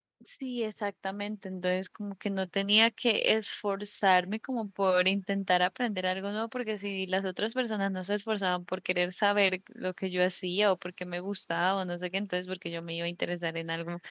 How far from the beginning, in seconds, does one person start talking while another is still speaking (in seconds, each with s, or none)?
none